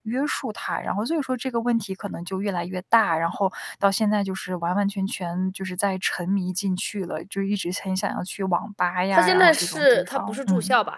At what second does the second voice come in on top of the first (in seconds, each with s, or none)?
9.1 s